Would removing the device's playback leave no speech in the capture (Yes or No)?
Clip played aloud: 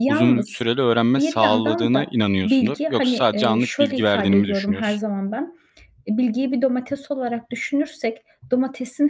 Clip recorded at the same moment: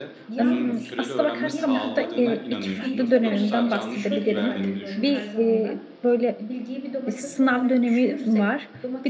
No